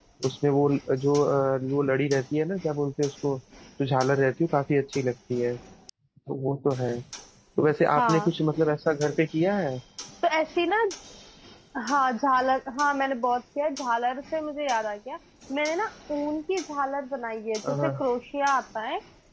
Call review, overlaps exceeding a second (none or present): none